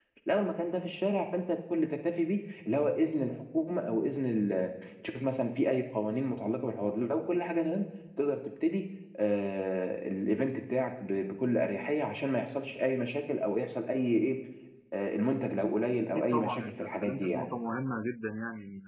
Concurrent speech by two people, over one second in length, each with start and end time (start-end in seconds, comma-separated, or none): 16.1-17.5